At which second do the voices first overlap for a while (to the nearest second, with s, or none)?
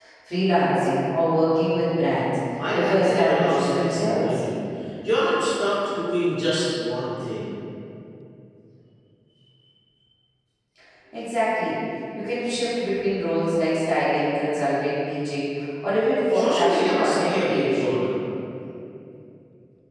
3 s